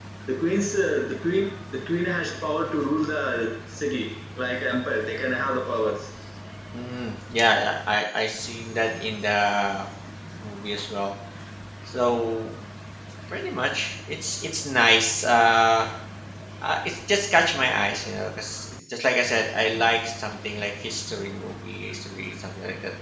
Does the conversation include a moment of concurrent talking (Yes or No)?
No